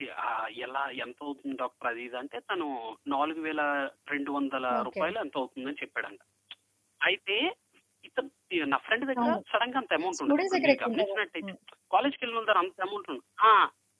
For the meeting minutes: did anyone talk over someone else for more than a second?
Yes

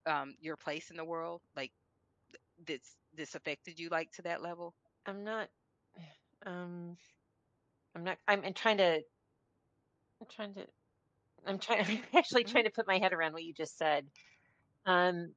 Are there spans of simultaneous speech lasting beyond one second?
No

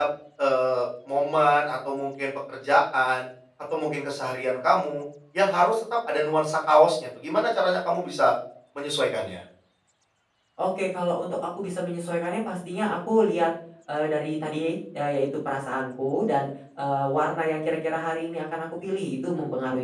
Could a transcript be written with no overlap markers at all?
Yes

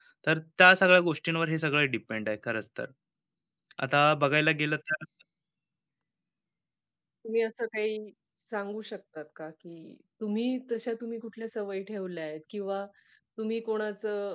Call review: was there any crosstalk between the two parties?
No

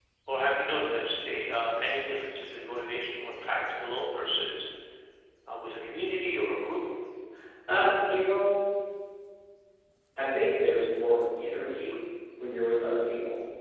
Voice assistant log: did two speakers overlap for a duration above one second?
No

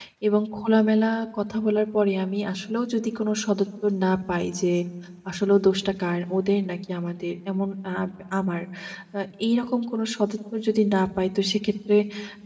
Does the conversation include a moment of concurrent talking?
No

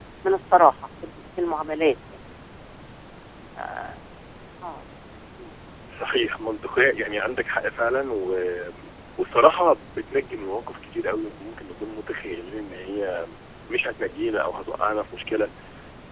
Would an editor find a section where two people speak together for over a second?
No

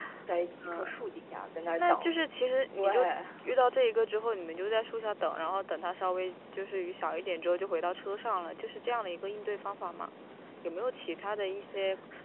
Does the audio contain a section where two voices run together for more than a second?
No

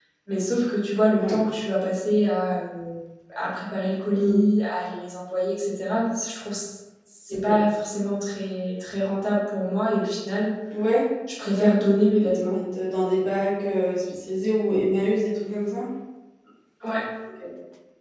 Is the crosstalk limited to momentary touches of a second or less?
Yes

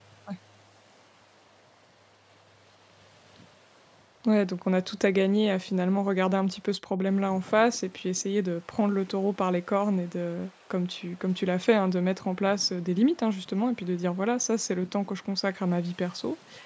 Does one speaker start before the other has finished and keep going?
No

